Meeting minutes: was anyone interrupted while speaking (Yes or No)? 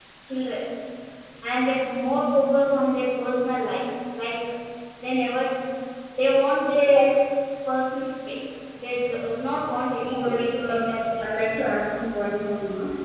Yes